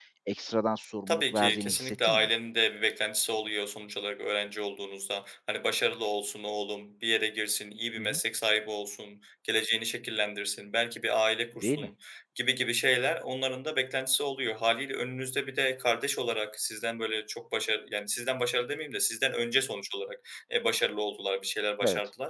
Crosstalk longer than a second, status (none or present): present